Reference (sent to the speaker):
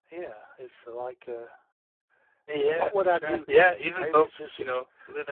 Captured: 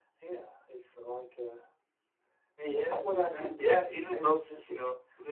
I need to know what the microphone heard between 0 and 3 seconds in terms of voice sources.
echo only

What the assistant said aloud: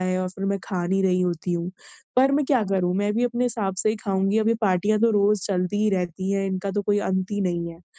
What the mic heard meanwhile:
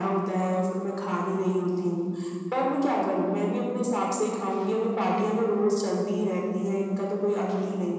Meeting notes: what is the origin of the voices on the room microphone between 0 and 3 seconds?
echo only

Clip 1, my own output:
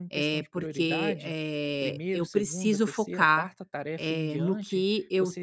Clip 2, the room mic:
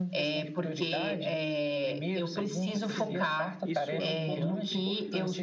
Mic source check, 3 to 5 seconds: both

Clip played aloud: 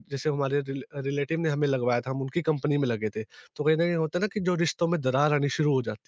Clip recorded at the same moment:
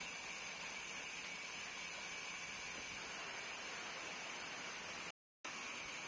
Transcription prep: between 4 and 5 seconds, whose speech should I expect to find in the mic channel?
neither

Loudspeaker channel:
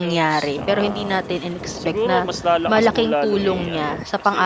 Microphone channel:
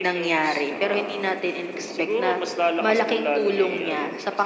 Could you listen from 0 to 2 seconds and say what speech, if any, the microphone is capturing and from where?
echo only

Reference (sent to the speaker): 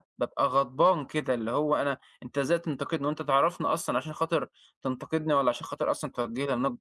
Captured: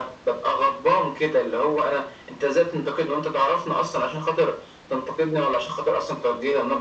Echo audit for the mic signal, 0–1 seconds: echo only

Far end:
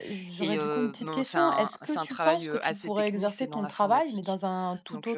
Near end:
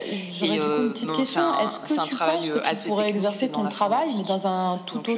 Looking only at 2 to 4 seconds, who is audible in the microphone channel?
echo only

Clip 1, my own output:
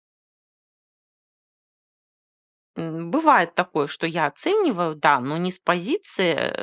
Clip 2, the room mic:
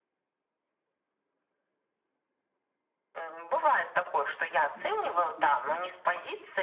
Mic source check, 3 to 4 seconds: echo only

